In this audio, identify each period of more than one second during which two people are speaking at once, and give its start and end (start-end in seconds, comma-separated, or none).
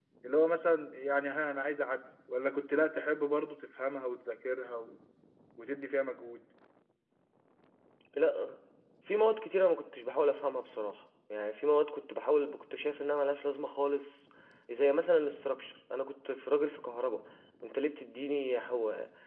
none